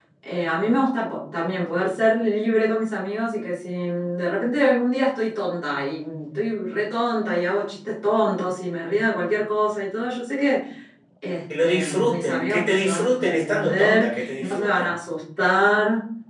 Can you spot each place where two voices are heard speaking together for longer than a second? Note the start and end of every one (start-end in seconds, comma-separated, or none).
11.5-15.0